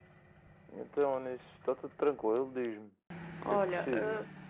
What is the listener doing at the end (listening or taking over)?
taking over